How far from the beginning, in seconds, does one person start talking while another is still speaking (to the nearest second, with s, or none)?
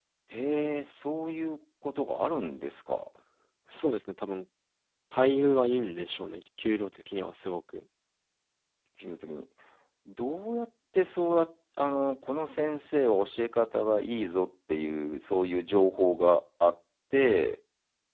none